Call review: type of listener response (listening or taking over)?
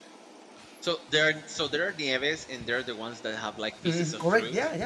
taking over